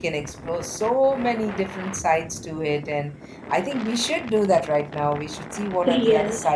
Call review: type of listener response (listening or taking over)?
listening